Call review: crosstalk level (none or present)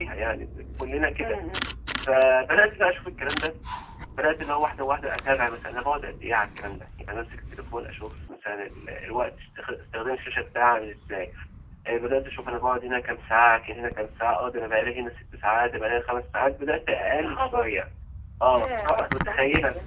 present